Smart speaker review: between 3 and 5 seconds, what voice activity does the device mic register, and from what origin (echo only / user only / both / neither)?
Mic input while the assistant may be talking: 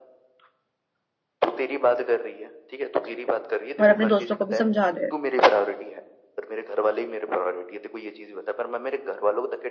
both